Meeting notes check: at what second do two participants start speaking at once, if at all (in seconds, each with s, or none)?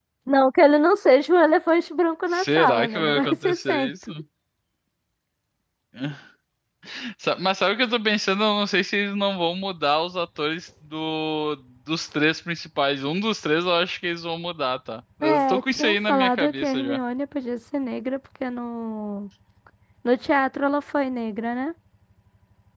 2.3 s